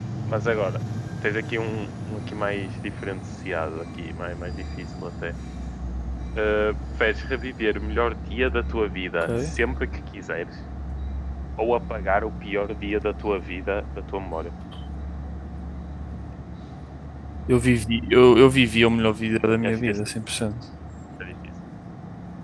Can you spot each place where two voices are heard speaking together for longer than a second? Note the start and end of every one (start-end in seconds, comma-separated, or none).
none